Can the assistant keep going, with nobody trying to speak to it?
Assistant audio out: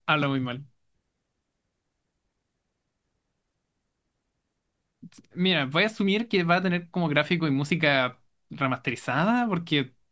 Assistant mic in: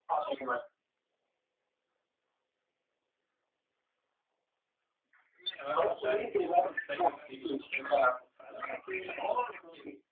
No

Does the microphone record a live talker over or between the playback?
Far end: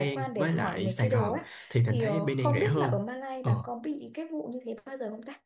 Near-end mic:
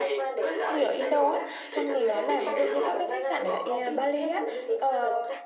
Yes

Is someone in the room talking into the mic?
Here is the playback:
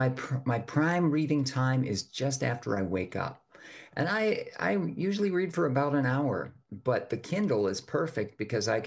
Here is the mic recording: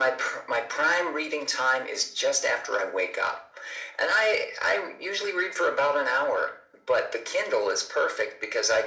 No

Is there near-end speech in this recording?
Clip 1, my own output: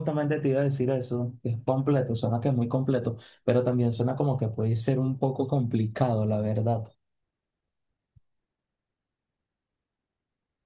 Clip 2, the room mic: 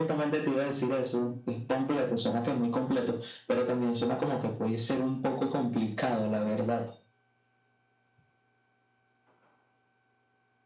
No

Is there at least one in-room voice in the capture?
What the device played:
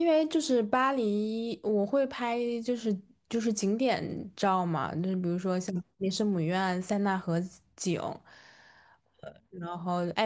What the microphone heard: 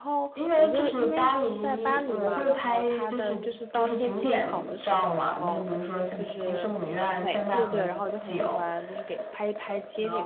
Yes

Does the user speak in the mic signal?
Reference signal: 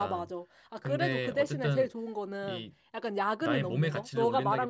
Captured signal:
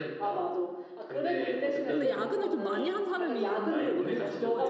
Yes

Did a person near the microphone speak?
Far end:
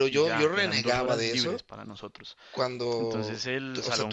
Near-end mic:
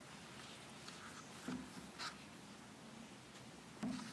No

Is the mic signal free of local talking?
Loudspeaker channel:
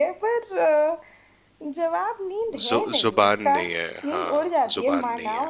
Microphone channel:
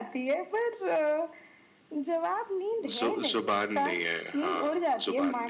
Yes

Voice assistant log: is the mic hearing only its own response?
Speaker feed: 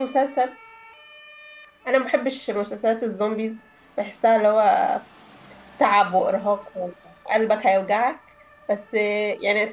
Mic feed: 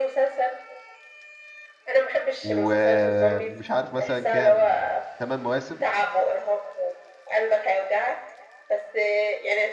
No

